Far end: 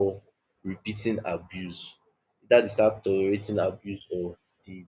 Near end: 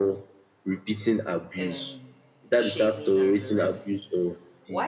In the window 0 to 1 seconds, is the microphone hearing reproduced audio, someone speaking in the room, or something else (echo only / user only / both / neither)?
echo only